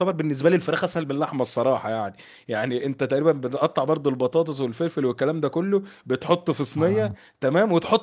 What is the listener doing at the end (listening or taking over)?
listening